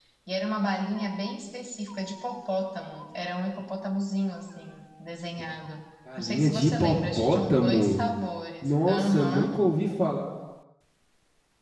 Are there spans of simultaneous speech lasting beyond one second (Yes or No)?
Yes